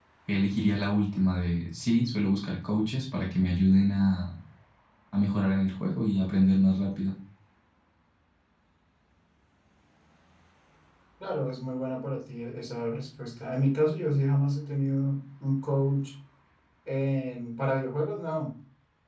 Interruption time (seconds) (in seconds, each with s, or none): none